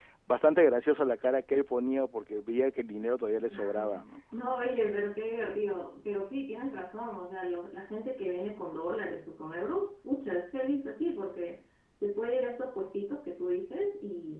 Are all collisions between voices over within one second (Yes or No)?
Yes